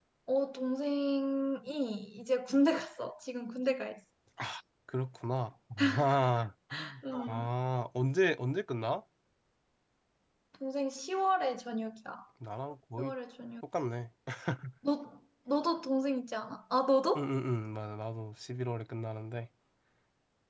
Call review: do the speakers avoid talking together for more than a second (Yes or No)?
Yes